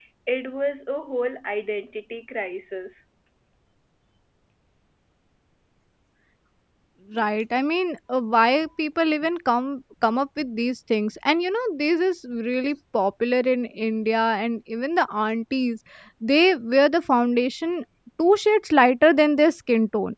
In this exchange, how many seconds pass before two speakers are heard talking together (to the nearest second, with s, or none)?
none